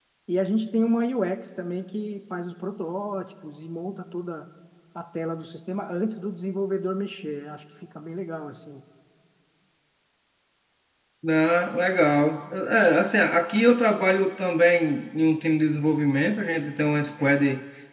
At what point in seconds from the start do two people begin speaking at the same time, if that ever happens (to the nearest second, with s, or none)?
none